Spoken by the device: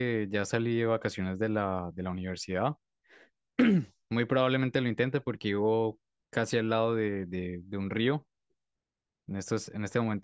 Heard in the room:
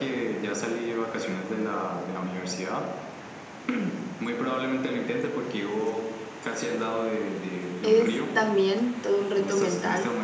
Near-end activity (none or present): present